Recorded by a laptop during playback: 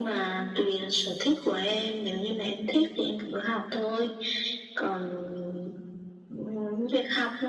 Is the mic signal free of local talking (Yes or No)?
Yes